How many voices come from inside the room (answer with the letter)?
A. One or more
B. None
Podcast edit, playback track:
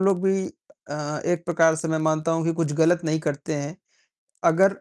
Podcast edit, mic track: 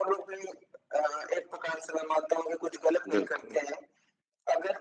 A